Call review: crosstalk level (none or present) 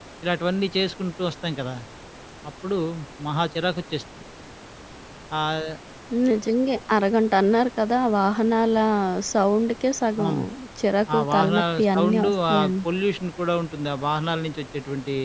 present